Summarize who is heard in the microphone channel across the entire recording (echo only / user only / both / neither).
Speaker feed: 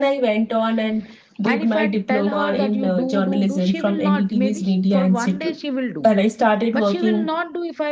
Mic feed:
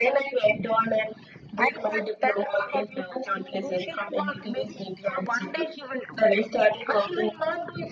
echo only